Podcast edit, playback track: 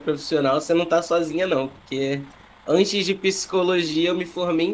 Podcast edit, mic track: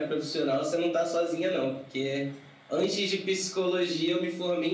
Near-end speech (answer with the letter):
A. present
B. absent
B